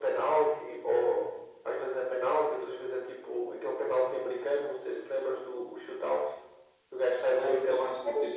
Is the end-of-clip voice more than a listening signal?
Yes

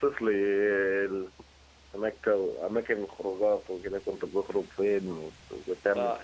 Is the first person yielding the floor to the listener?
Yes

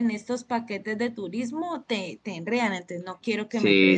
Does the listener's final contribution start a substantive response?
Yes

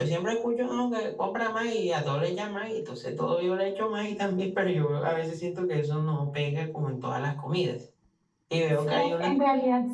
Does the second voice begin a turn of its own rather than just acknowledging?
Yes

